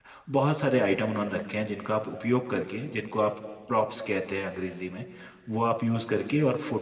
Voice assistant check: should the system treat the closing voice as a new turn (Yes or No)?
No